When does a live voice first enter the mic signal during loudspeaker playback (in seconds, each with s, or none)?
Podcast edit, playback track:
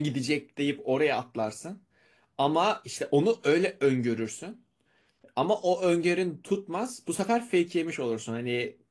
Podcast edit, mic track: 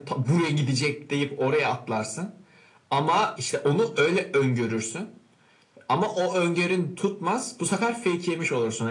none